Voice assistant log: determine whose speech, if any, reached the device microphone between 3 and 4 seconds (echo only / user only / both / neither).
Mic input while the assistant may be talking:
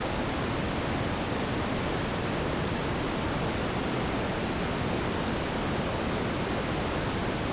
neither